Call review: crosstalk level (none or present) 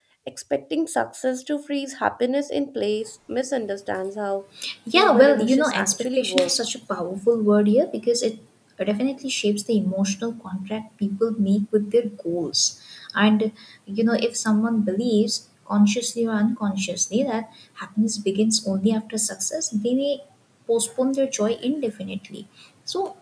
present